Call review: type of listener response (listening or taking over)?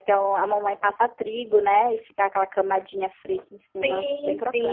taking over